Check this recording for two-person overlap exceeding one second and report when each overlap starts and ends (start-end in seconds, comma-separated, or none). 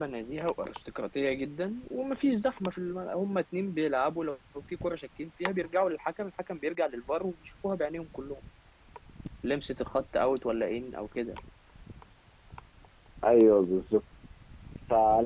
none